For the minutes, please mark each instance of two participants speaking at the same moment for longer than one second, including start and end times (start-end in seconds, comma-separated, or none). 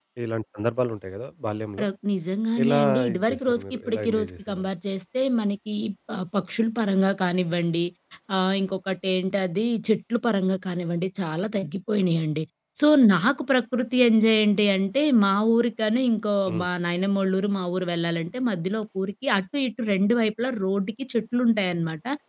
2.6-4.6